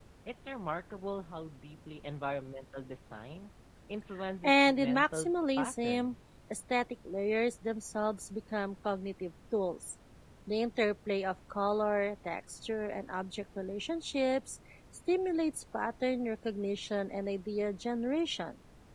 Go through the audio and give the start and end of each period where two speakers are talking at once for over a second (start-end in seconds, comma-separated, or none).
4.4-6.2